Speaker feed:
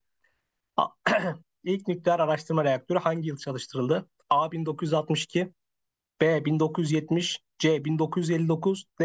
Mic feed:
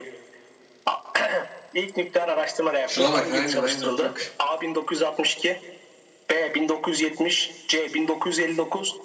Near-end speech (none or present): present